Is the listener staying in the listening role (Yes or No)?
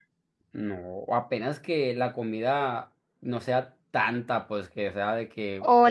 No